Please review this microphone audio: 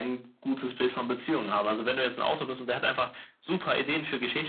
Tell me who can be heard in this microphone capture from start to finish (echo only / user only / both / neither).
echo only